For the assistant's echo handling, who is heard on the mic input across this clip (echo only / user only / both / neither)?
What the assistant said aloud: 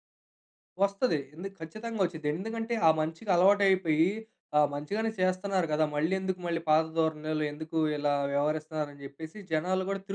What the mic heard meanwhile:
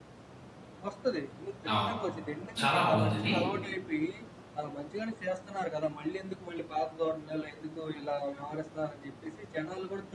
both